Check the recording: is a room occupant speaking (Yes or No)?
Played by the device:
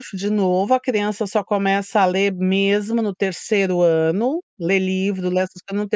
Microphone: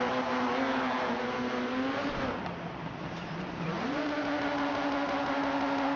No